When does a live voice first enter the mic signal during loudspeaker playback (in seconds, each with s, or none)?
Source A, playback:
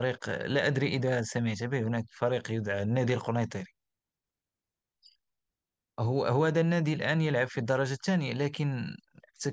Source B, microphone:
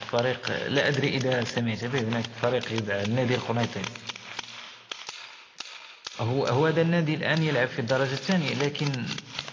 none